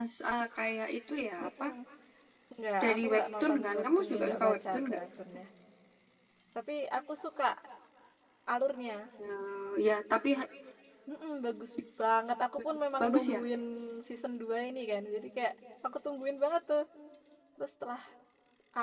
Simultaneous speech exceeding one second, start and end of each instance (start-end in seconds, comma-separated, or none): 2.8-5.0